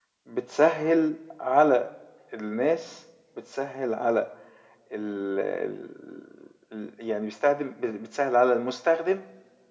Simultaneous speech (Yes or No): No